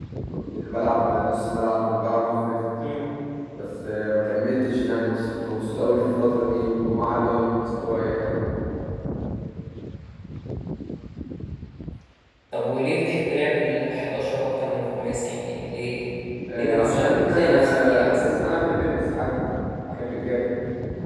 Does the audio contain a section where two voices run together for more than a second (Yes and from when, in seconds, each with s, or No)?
Yes, from 16.5 s